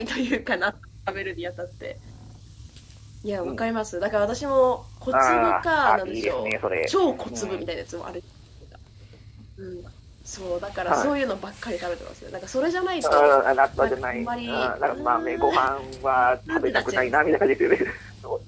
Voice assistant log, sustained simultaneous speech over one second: present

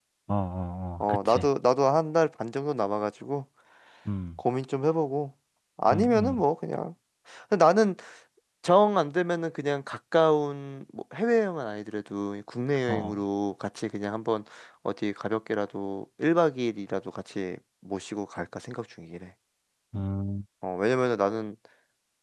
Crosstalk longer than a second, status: none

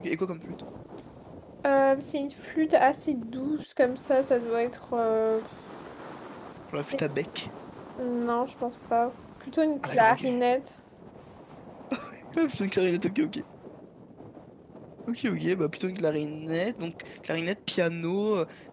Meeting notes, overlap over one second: none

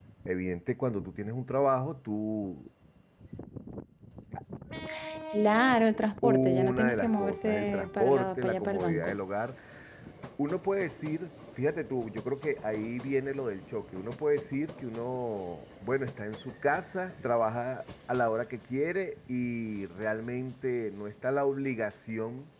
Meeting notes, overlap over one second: present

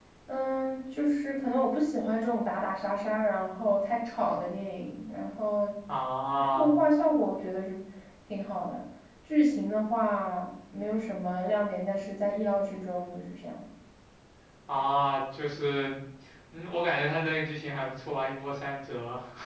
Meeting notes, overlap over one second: none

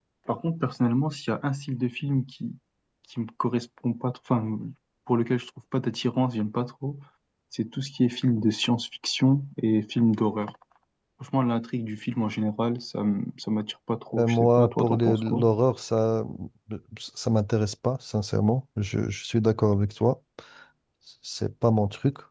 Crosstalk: present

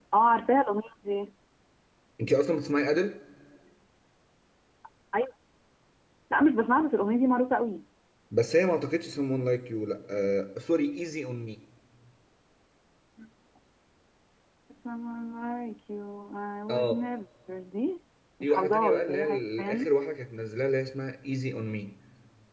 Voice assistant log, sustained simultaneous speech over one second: present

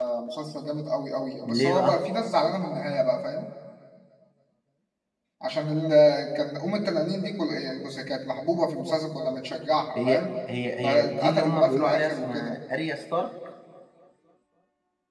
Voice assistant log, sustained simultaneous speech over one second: present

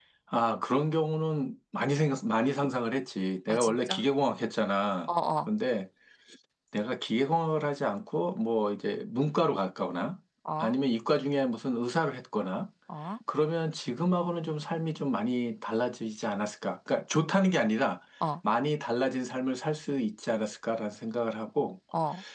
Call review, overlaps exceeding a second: none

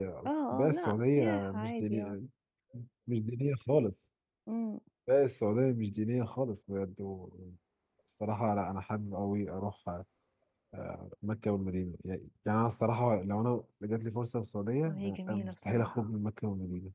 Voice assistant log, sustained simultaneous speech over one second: present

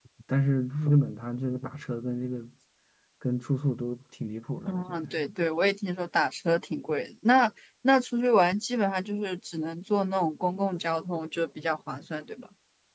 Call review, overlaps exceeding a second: none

